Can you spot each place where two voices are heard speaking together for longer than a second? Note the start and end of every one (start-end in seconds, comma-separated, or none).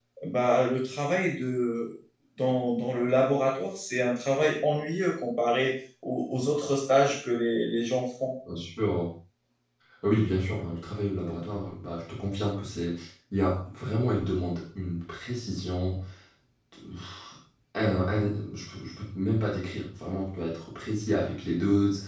none